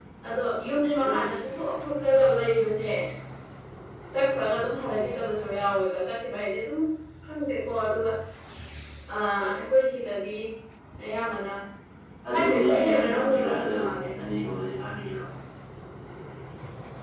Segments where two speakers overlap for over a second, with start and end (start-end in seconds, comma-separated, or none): 12.3-13.7